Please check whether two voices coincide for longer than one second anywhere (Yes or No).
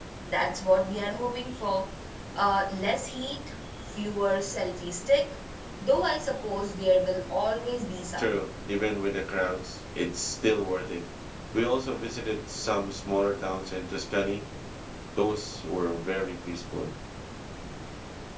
No